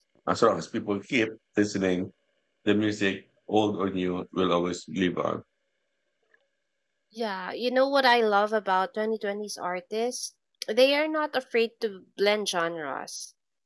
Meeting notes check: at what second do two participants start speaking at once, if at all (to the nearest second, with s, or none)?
none